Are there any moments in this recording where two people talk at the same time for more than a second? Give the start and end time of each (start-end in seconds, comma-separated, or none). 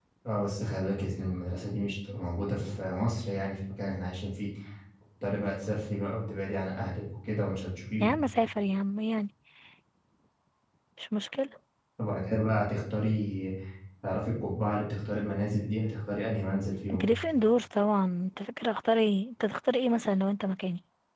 none